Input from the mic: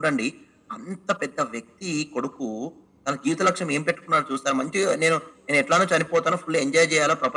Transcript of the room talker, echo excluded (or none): none